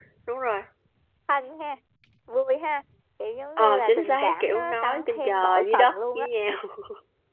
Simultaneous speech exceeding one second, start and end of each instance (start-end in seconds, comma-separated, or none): 3.6-6.3